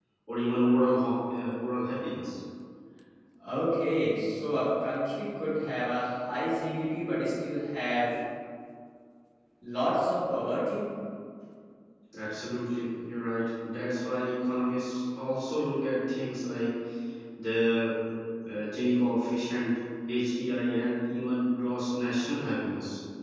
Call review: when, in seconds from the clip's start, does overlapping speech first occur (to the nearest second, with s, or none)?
none